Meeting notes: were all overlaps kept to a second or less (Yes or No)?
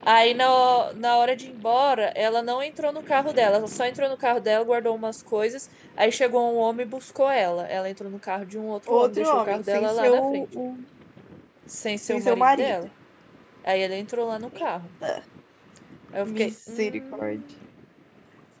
No